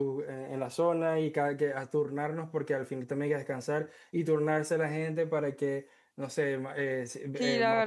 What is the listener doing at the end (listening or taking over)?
taking over